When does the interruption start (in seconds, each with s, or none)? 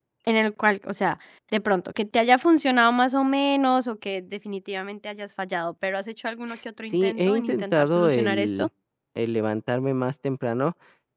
6.8 s